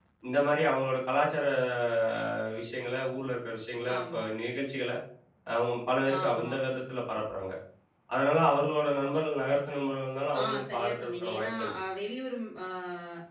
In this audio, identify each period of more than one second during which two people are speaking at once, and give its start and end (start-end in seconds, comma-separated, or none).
10.4-11.8